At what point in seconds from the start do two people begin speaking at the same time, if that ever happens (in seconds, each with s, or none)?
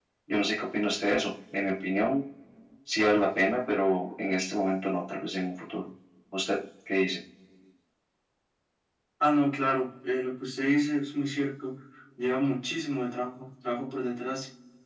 none